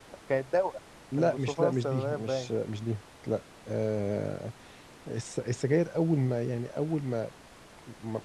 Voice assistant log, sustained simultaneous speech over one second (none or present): present